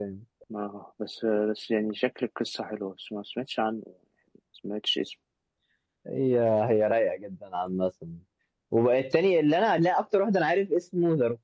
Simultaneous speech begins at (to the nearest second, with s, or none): none